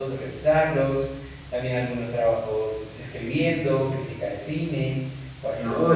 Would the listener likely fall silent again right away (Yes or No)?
Yes